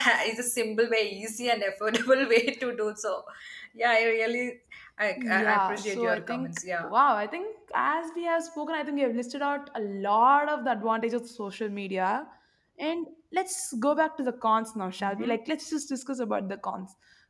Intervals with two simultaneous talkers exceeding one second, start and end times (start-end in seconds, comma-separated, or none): 5.2-6.9